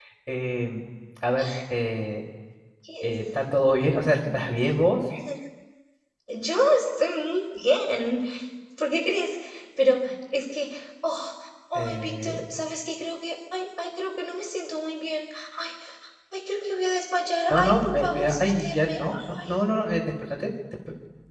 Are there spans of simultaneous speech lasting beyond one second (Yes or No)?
Yes